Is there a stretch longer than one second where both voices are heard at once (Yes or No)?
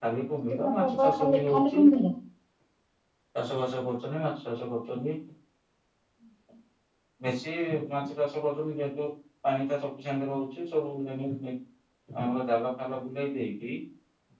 Yes